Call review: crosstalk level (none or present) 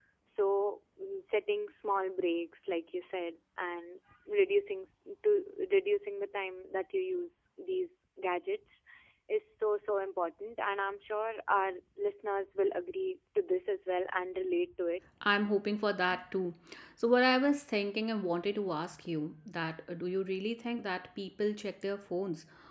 none